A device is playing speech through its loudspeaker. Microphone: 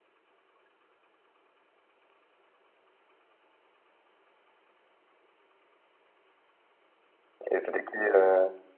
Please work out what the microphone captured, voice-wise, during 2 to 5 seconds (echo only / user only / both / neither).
neither